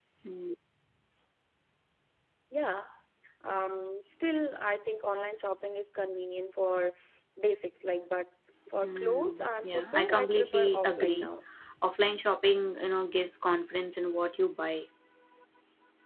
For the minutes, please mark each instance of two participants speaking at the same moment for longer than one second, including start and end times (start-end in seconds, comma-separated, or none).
8.8-11.3